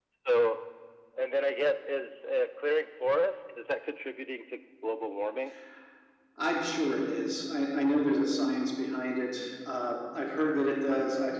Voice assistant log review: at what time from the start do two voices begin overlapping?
none

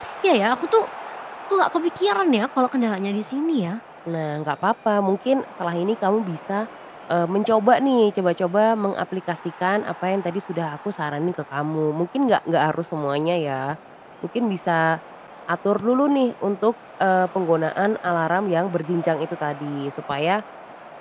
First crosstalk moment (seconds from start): none

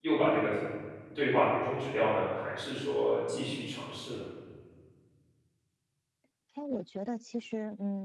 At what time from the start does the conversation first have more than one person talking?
none

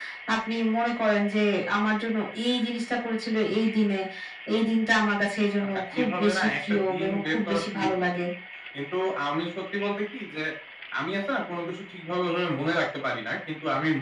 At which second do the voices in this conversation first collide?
6 s

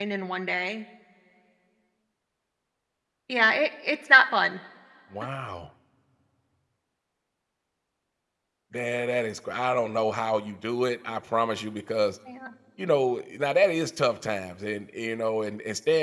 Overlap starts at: none

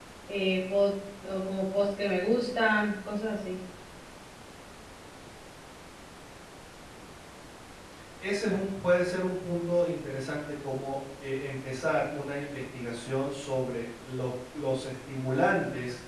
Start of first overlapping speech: none

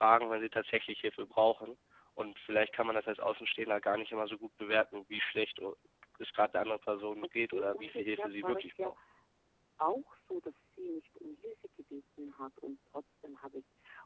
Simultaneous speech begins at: 7 s

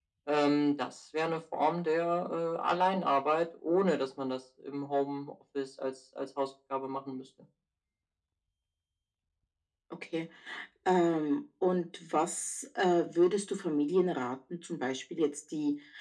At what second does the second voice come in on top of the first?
none

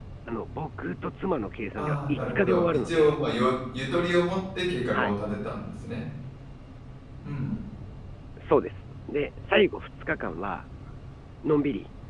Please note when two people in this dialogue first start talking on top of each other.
2 s

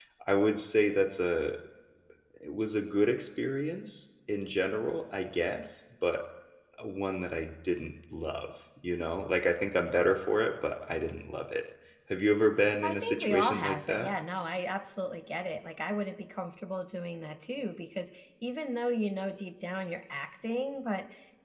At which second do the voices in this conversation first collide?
13 s

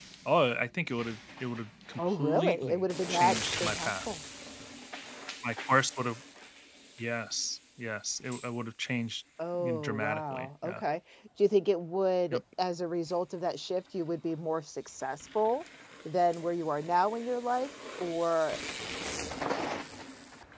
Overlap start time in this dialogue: 2 s

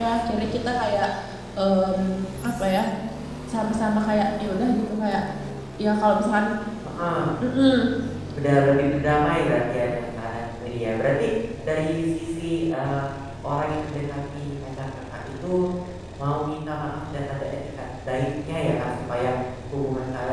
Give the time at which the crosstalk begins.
none

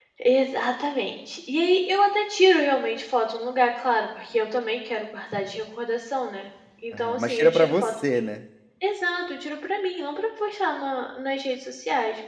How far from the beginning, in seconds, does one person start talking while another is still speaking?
7 s

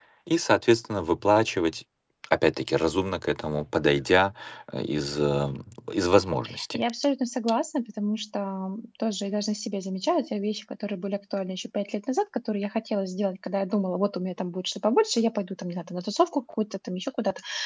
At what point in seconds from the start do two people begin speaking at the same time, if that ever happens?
none

